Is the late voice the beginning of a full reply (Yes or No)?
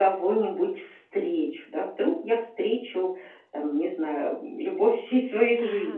Yes